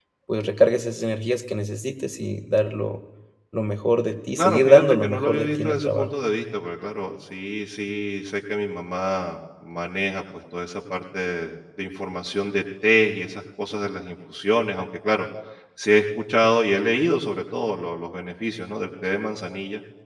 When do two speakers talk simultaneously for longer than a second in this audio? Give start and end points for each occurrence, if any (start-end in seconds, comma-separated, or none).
4.4-6.1